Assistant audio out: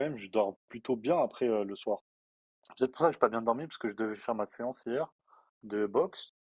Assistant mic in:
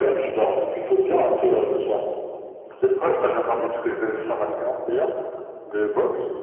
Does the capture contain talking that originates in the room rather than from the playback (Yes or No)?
No